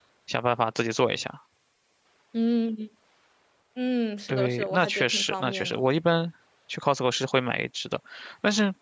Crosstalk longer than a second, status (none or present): present